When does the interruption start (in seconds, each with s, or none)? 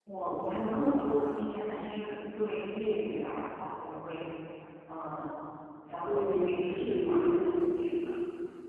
6.0 s